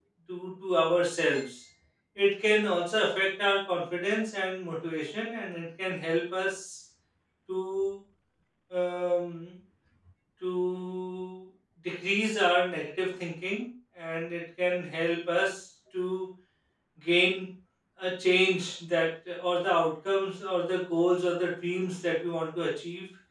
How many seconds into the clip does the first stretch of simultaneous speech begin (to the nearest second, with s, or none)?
none